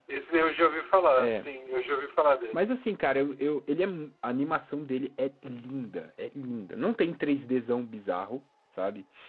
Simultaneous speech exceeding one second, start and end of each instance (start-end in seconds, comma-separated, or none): none